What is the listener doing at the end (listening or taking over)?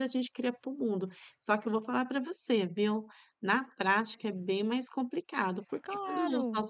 listening